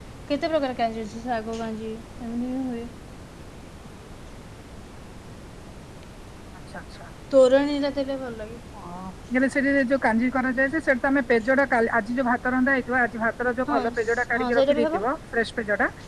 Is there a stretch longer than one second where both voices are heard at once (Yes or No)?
Yes